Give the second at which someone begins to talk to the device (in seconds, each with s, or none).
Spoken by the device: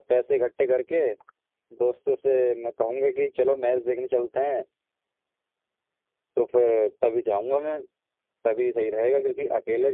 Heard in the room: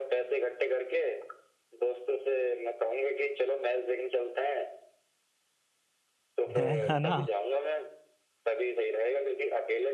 6.6 s